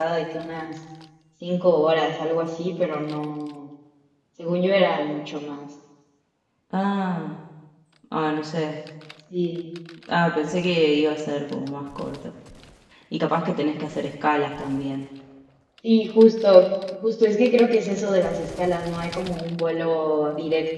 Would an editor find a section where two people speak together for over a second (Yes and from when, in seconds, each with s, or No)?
No